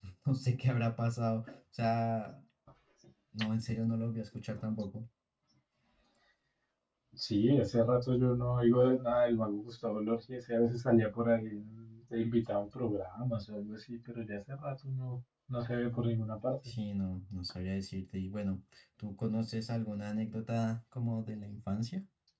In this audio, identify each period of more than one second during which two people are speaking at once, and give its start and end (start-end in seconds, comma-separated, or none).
none